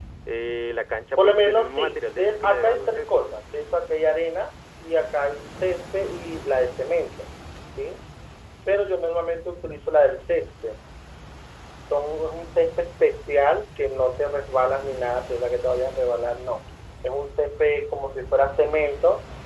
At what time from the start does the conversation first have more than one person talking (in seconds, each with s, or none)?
1.2 s